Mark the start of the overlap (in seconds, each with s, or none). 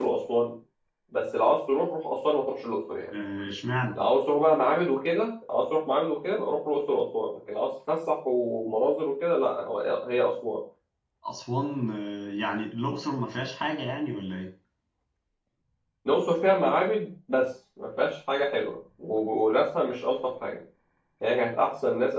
none